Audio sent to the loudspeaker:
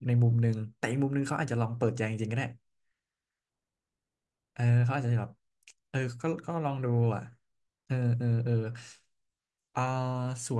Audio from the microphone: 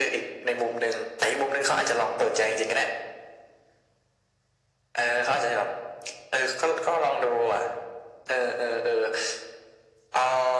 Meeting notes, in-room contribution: none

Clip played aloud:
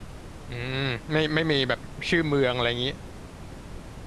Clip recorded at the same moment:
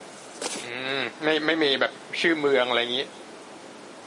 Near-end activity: none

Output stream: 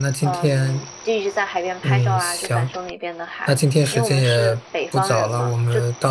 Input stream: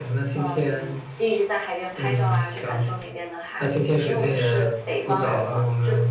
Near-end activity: none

